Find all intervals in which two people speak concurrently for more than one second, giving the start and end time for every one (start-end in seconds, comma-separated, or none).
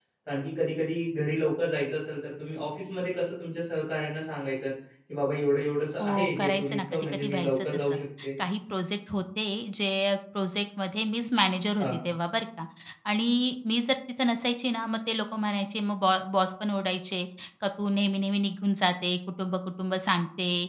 6.0-8.0